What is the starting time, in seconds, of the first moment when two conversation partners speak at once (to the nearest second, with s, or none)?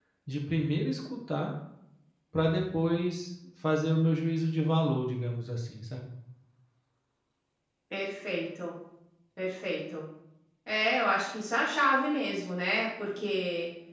none